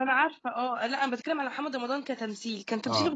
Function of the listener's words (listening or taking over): listening